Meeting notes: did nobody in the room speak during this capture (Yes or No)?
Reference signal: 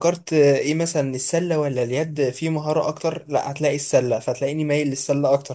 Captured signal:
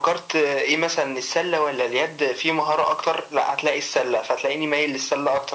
Yes